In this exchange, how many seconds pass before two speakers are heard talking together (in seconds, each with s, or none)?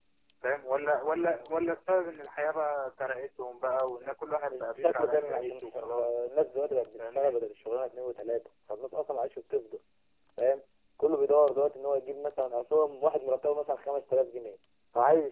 4.5 s